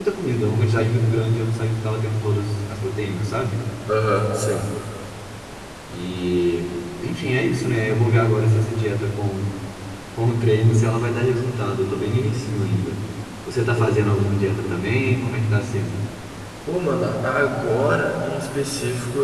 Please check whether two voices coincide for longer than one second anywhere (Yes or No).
No